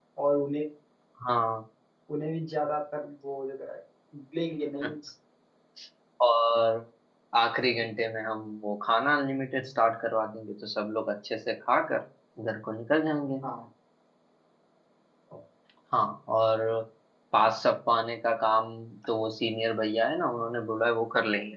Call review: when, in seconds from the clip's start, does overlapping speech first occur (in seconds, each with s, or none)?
none